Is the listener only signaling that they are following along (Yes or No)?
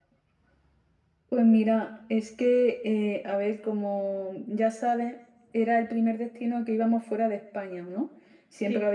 Yes